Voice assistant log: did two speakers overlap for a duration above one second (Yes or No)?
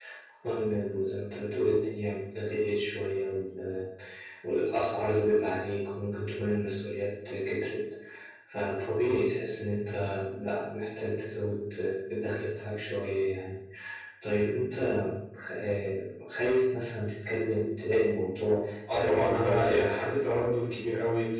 Yes